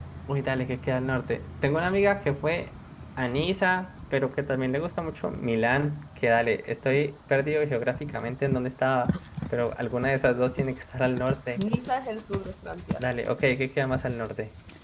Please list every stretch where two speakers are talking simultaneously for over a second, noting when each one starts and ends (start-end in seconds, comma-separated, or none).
none